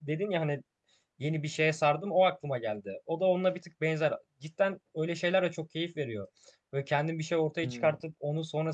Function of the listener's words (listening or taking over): listening